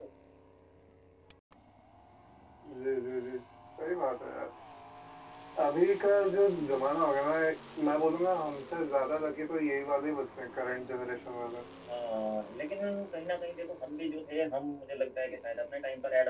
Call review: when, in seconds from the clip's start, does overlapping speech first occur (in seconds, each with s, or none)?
none